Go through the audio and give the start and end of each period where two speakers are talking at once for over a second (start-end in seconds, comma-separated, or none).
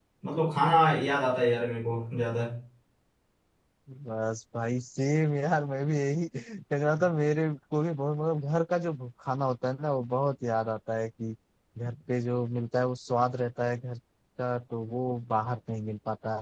none